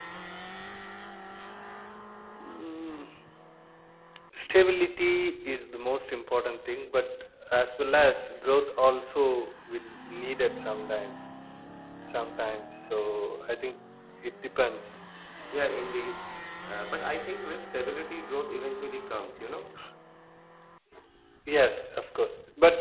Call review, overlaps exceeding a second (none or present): none